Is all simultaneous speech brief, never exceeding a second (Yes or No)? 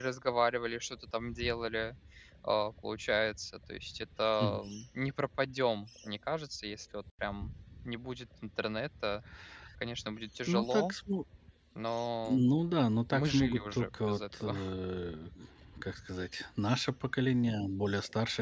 No